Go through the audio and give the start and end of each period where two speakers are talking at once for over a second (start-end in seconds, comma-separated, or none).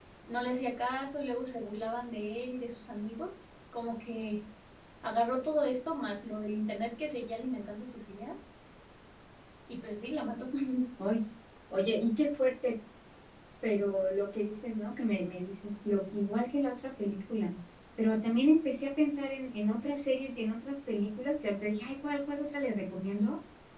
none